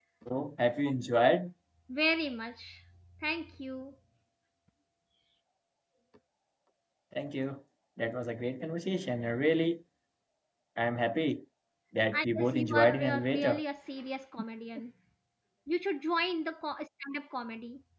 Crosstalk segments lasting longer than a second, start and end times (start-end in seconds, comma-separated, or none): 12.1-13.6